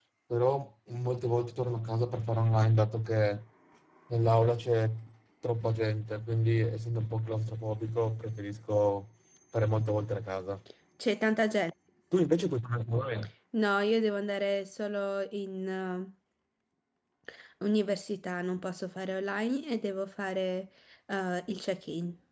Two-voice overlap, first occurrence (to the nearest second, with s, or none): none